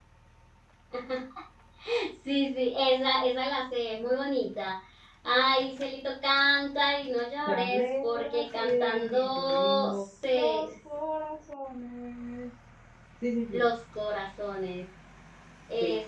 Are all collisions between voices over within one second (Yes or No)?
No